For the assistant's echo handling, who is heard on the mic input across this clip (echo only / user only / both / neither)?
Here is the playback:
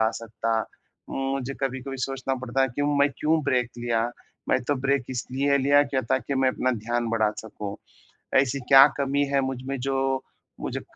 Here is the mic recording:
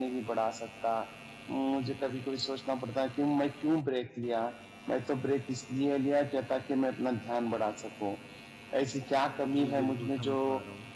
both